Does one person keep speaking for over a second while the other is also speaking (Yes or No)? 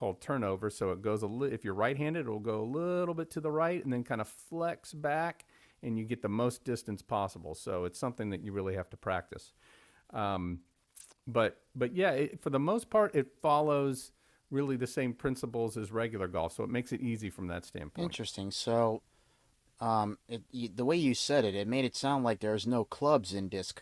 No